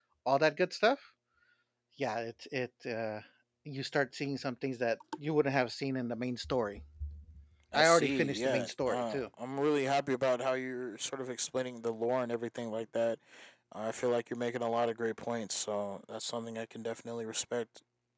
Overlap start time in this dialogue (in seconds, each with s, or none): 7.7 s